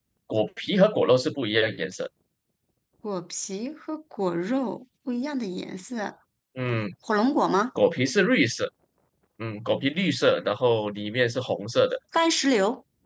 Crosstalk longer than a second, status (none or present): none